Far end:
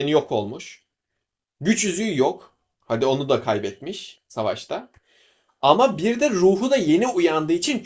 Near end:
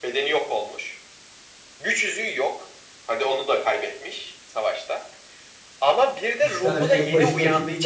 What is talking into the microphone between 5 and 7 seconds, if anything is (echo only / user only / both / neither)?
both